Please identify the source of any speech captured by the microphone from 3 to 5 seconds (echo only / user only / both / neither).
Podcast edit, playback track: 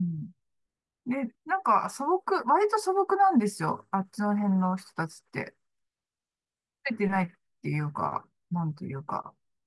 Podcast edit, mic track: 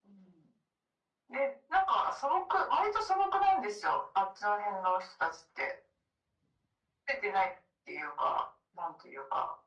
echo only